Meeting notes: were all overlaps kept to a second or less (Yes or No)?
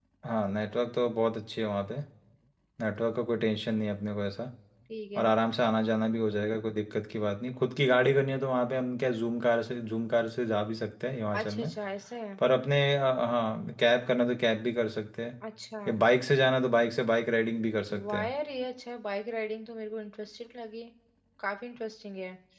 Yes